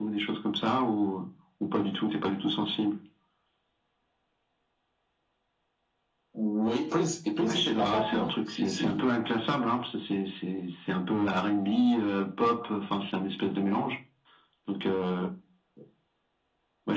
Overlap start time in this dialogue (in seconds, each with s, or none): 7.5 s